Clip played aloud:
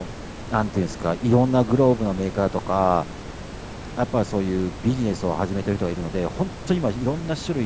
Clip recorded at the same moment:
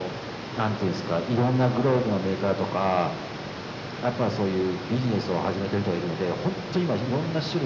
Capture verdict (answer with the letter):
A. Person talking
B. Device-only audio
B